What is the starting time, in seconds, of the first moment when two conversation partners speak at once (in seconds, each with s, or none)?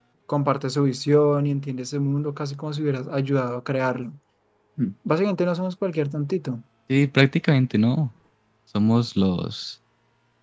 none